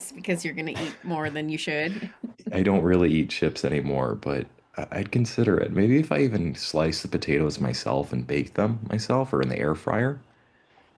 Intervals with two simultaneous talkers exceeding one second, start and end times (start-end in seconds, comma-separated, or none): none